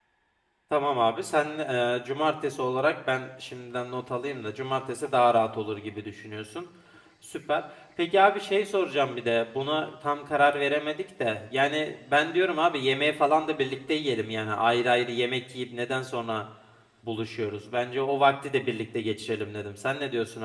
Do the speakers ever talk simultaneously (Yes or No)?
No